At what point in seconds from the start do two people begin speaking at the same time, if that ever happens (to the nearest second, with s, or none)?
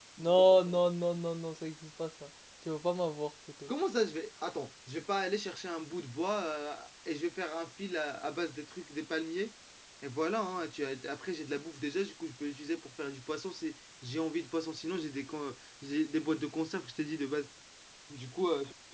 none